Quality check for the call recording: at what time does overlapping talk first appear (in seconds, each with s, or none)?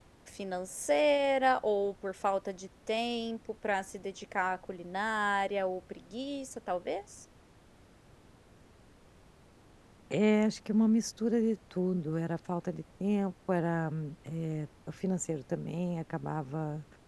none